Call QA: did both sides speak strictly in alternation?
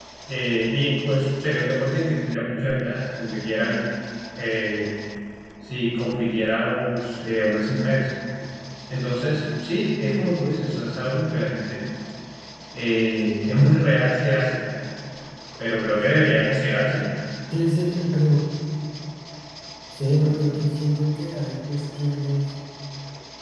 Yes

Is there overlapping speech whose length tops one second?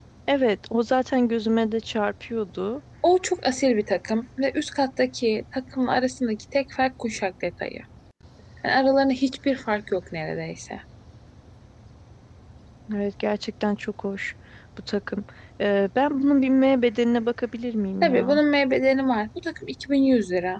No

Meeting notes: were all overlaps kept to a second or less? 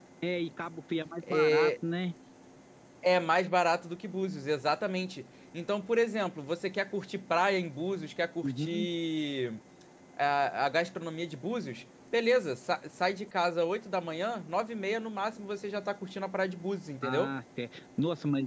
Yes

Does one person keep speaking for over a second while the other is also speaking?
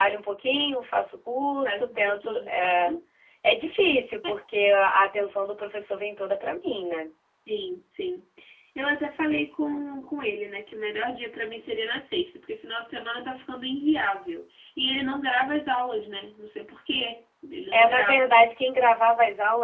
Yes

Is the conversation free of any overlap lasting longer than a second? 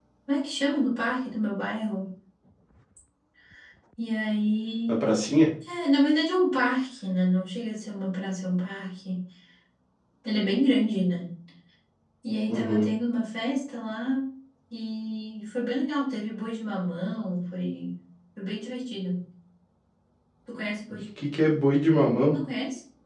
Yes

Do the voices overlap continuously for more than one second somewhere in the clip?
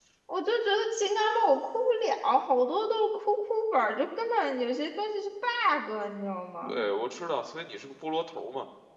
No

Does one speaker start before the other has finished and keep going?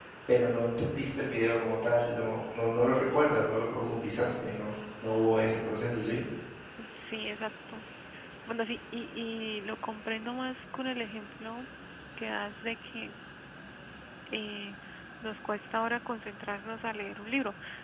No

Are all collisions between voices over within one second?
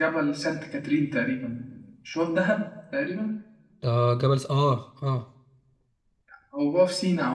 Yes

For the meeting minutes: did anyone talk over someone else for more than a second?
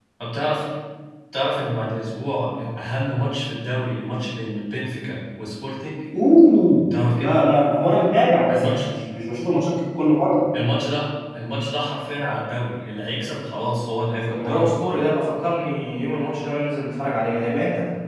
No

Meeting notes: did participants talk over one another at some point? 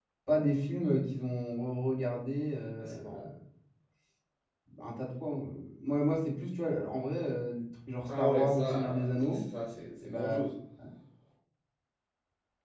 Yes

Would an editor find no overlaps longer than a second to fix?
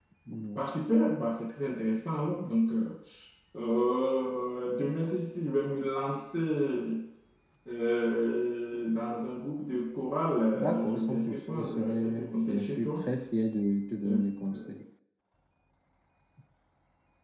No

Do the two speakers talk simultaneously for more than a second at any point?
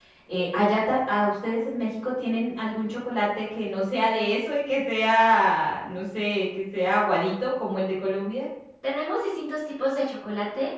No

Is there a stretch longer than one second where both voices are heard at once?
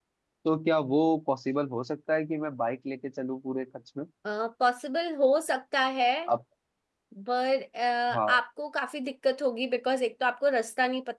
No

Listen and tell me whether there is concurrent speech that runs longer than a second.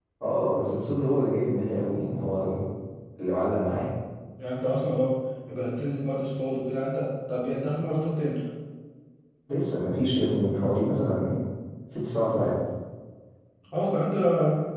No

